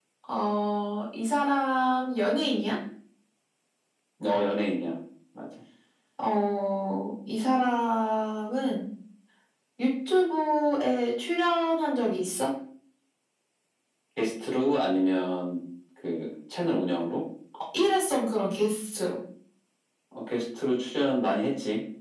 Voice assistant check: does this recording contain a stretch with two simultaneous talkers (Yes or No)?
No